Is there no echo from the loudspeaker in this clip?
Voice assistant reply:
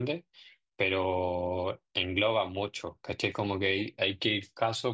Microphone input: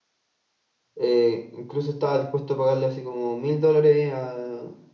Yes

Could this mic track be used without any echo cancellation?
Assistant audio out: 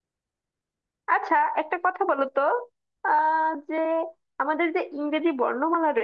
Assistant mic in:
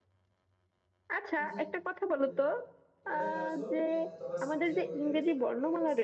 No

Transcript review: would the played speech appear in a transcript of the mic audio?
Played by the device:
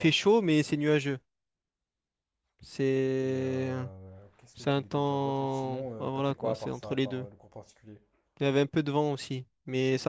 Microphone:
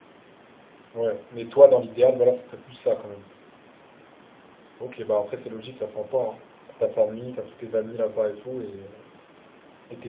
No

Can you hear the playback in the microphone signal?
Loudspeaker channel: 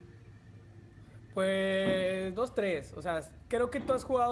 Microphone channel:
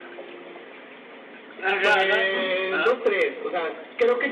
Yes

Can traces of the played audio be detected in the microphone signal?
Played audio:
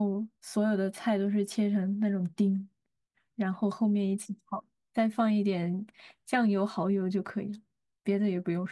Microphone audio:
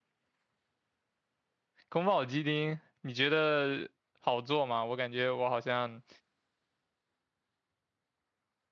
No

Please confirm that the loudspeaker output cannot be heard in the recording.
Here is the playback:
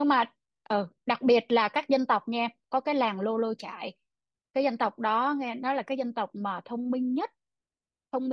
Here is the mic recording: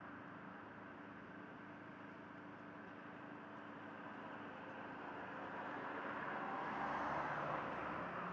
Yes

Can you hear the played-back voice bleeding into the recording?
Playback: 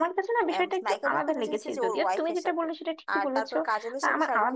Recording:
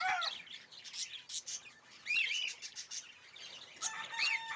No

